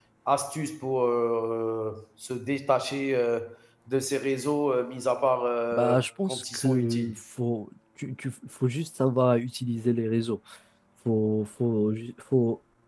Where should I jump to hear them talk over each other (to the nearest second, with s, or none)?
6 s